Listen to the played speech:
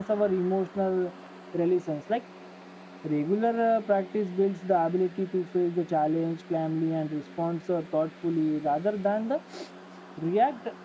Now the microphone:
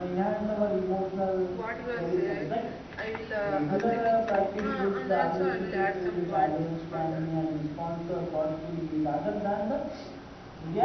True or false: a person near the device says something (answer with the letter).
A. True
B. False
A